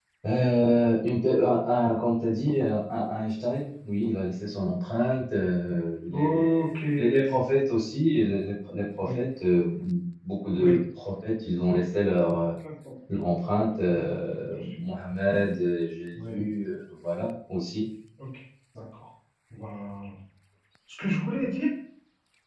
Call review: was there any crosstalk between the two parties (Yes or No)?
Yes